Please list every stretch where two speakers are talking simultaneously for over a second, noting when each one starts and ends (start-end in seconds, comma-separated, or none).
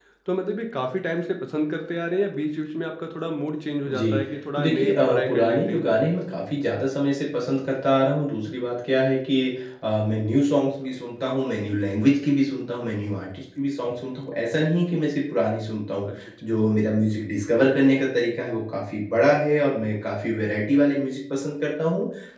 4.5-5.9